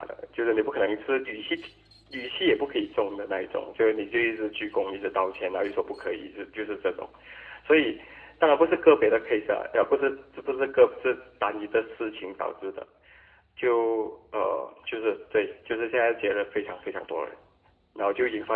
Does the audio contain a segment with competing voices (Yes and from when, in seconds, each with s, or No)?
No